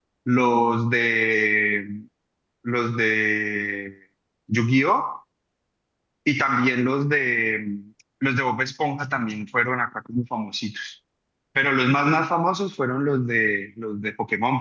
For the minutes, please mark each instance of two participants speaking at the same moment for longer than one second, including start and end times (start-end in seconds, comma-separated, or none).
none